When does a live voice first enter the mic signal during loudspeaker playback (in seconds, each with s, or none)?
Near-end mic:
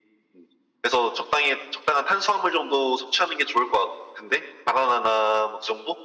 none